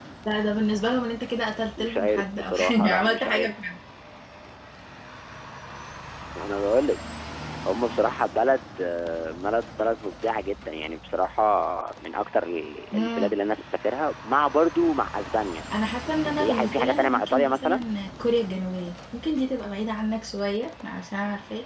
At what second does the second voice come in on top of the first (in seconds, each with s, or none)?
1.8 s